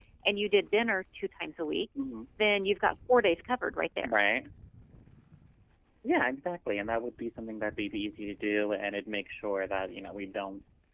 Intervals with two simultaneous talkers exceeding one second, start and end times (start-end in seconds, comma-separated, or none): none